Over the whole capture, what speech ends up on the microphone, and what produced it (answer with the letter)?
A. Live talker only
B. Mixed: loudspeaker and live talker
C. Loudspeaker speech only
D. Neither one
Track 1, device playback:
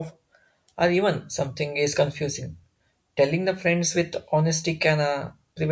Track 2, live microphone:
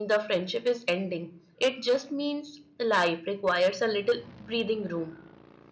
A